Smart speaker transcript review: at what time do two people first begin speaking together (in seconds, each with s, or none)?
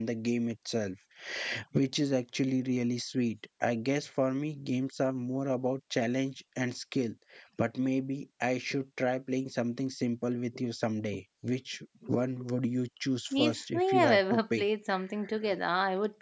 13.3 s